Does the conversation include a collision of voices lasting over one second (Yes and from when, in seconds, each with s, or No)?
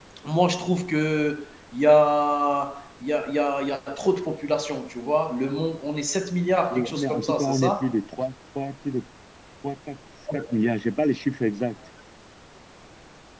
Yes, from 6.7 s